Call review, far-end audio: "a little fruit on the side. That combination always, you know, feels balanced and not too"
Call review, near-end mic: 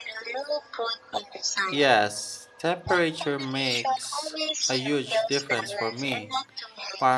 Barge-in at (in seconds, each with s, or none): 1.6 s